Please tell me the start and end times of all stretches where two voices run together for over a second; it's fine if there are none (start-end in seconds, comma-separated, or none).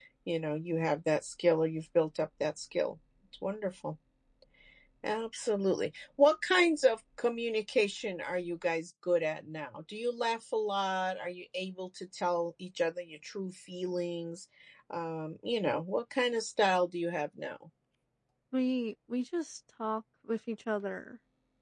none